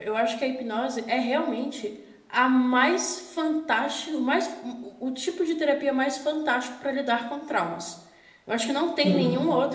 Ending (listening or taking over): listening